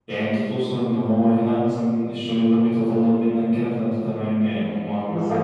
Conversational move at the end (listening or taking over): taking over